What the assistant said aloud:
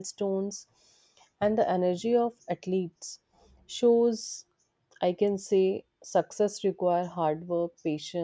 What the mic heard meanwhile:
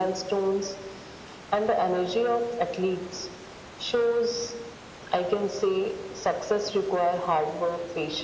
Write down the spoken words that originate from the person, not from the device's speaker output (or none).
none